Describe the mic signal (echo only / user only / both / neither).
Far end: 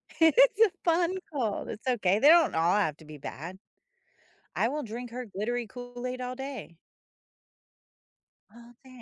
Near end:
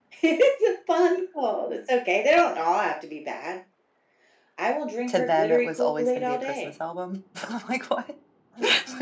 both